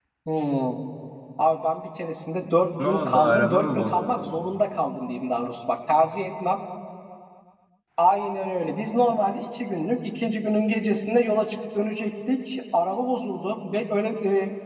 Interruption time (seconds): 2.8 s

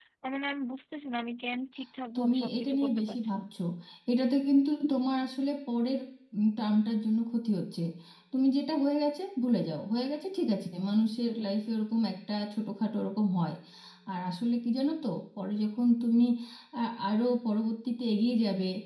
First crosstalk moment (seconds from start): 2.1 s

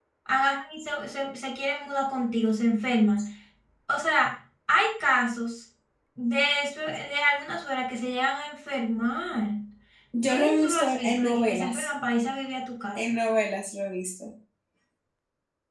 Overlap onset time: 10.2 s

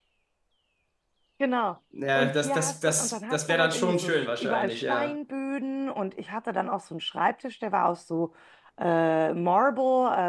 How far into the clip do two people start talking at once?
2.2 s

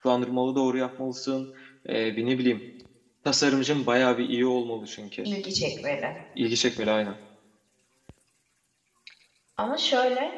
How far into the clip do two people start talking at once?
none

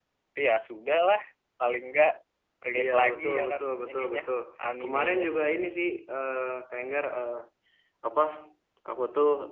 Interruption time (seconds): 2.8 s

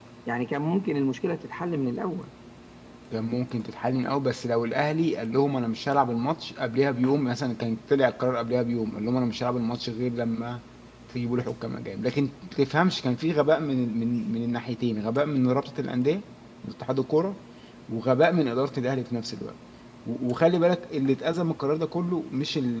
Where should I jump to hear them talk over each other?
none

